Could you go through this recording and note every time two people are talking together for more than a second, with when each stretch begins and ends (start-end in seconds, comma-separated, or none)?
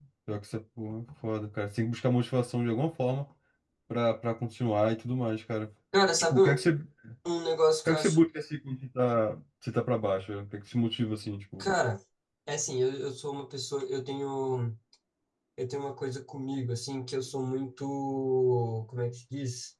none